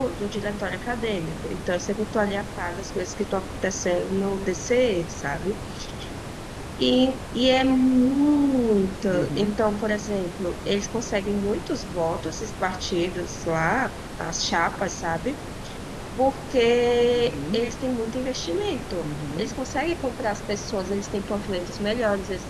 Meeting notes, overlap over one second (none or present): none